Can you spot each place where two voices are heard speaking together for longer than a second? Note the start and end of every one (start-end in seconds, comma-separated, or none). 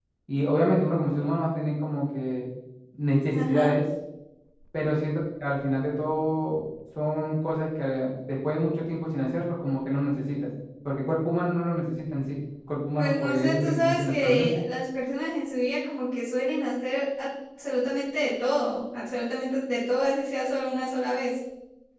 13.0-14.6